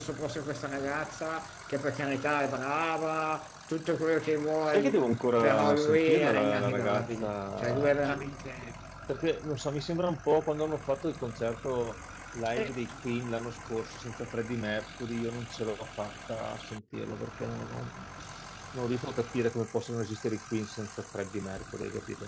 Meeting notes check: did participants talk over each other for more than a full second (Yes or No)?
Yes